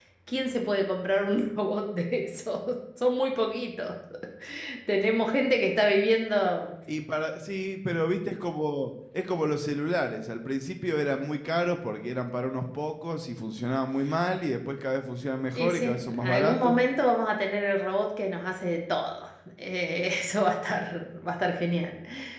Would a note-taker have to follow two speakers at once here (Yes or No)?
Yes